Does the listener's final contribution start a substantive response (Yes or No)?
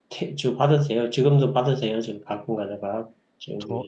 Yes